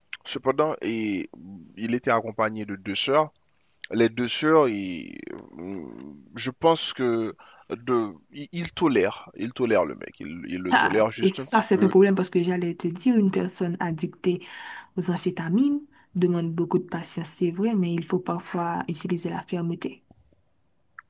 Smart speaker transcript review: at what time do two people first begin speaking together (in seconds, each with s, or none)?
10.7 s